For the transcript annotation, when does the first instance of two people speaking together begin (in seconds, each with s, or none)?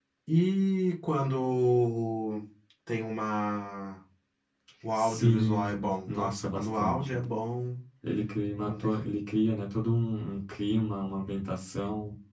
5.0 s